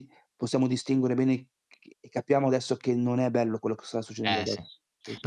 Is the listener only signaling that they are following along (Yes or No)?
No